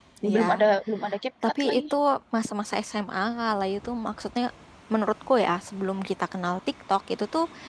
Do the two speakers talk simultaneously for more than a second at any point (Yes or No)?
No